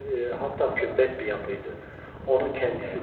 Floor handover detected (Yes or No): No